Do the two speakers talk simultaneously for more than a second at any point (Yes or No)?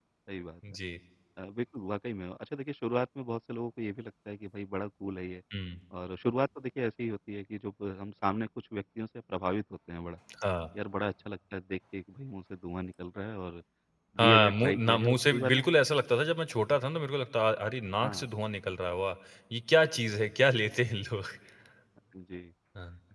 Yes